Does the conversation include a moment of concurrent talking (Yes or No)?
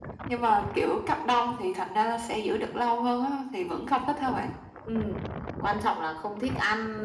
No